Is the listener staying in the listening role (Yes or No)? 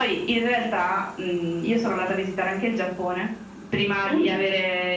Yes